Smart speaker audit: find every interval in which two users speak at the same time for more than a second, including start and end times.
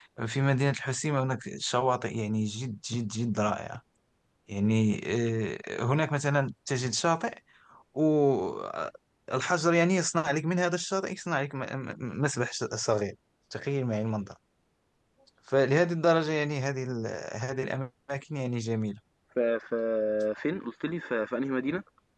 none

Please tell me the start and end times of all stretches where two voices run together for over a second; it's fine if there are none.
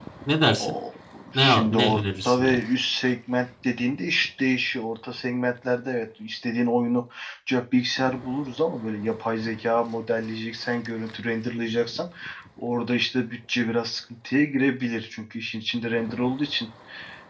1.3-2.6

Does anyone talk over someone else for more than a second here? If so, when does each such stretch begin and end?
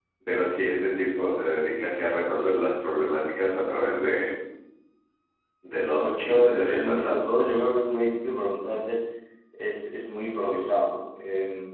5.9-7.2

